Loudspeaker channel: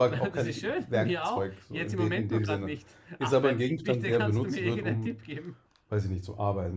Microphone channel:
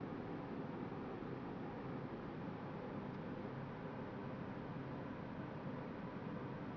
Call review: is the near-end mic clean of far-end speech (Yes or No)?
Yes